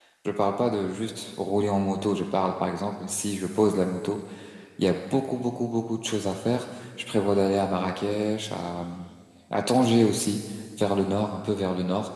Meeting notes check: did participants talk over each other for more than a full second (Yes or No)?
No